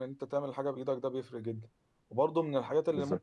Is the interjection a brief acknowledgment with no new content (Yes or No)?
Yes